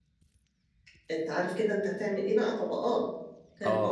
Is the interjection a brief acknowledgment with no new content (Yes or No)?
No